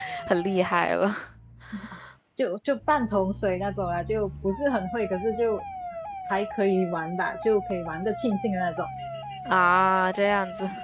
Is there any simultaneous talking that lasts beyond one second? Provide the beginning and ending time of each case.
none

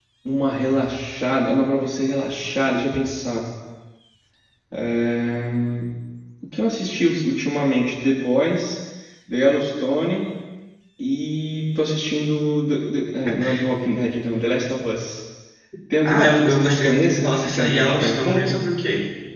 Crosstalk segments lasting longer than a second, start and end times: 16.0-18.6

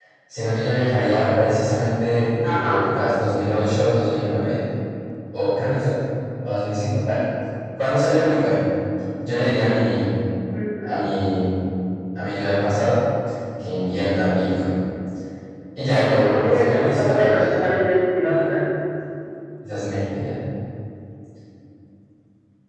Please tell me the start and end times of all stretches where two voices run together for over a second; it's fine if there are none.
15.9-17.4

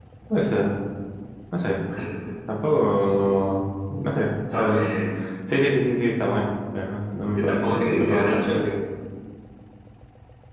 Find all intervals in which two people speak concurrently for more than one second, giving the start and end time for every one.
7.4-8.6

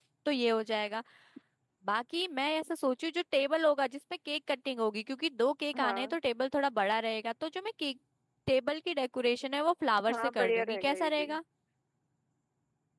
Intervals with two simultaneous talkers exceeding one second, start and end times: 10.1-11.3

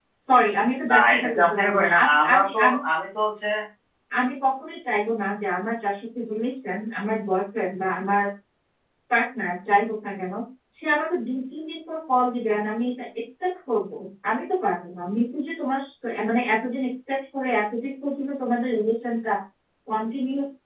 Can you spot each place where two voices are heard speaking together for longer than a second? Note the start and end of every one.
0.9-2.8

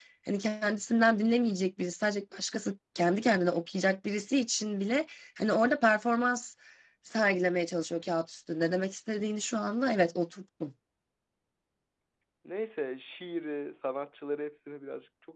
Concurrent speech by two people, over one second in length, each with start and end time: none

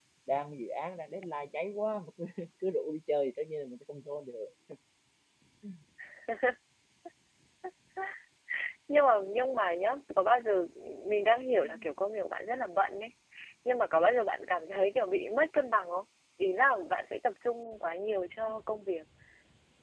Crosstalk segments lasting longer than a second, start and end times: none

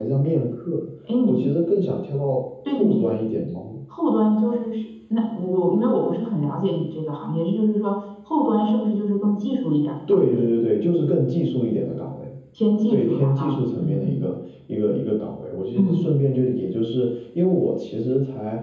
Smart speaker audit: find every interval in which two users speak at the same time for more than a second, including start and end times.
12.9-14.2

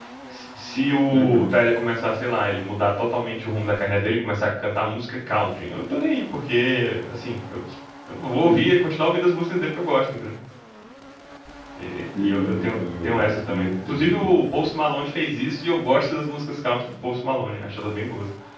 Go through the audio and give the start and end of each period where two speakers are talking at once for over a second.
12.2-14.4

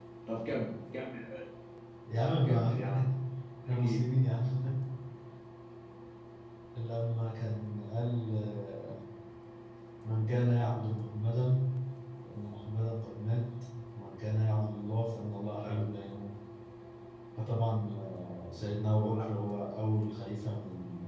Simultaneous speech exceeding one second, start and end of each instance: none

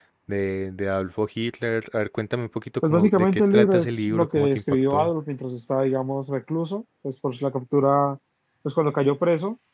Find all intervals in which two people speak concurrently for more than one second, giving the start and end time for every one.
2.8-5.1

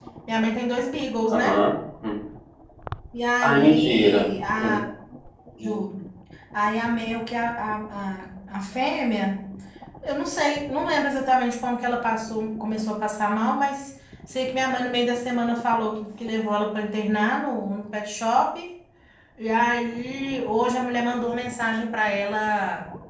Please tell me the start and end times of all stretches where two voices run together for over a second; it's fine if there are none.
3.4-4.8

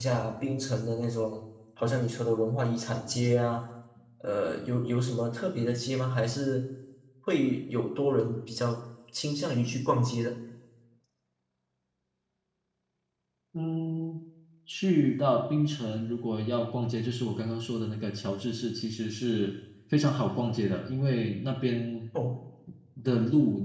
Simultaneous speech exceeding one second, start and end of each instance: none

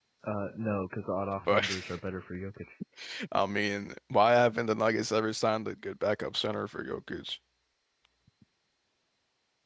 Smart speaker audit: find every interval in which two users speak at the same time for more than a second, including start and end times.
none

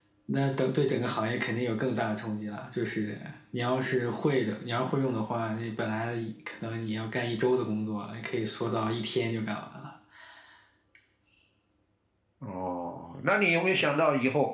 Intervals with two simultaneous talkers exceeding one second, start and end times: none

